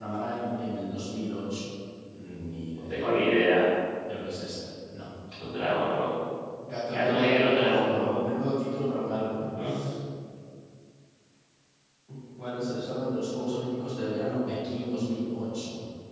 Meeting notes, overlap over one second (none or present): present